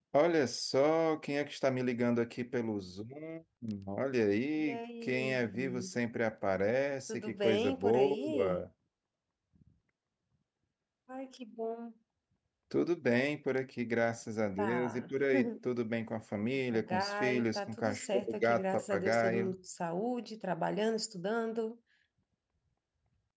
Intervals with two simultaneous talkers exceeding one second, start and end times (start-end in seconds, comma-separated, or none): 4.6-5.9, 7.1-8.6, 16.7-19.5